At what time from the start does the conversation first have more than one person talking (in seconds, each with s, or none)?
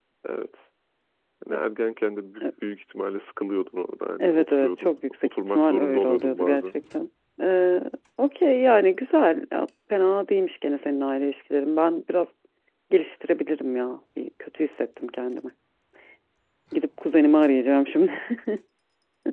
4.2 s